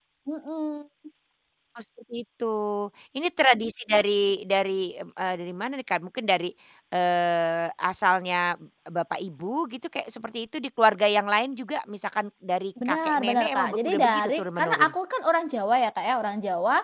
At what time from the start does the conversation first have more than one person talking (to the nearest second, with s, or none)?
13 s